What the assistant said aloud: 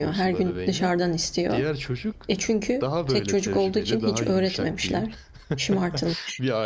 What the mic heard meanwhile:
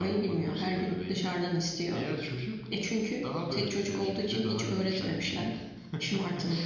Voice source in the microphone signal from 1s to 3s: echo only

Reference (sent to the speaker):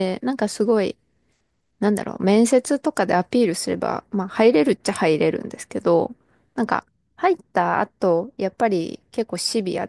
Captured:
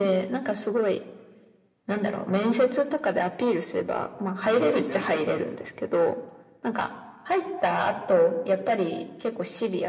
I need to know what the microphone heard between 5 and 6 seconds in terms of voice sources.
both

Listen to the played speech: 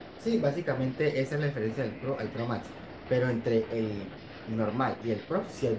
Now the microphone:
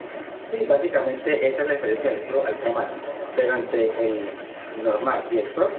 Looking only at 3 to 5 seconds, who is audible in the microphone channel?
both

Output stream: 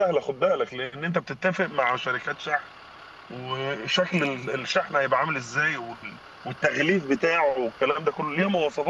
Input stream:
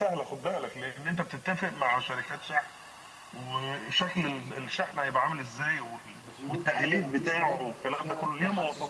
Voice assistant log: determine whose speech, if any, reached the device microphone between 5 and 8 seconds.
both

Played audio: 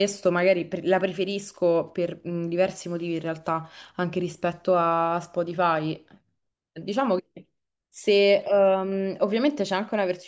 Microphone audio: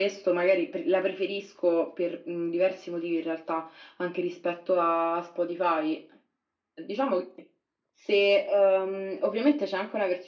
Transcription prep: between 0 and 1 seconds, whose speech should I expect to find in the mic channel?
echo only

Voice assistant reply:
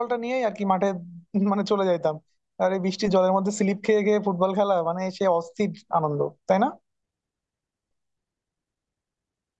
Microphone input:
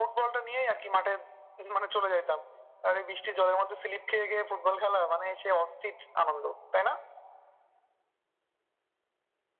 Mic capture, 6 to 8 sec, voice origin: echo only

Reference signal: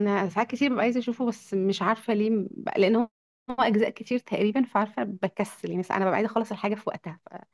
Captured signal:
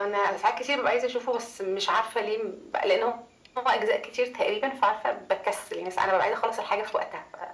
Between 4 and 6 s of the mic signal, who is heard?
echo only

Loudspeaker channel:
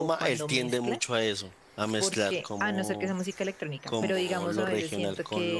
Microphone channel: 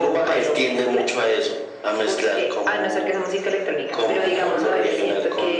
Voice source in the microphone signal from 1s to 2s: echo only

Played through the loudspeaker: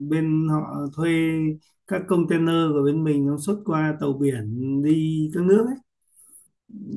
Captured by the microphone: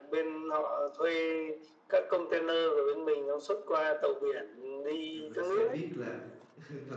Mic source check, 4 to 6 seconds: both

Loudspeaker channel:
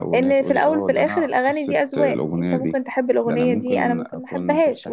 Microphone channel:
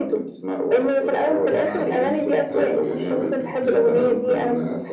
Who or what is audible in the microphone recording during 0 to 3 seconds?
both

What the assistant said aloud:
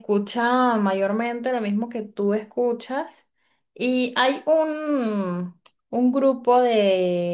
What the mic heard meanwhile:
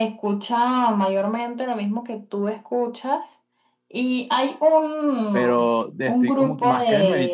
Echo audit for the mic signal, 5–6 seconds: both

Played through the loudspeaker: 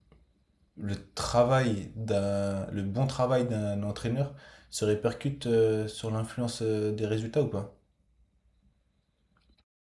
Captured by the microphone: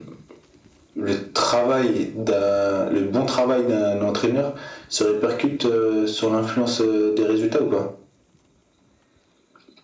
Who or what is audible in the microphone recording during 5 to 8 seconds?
echo only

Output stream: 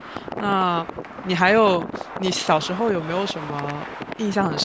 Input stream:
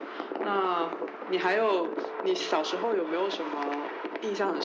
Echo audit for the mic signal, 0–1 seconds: echo only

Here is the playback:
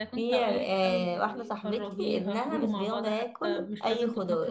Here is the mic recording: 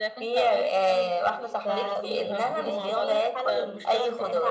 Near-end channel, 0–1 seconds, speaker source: echo only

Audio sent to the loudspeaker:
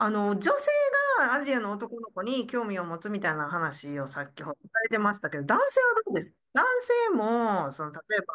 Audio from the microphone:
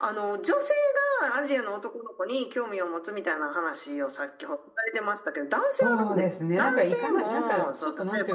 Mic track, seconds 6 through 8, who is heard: both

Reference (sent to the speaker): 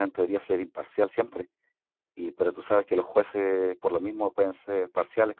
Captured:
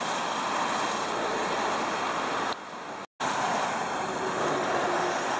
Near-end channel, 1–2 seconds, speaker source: neither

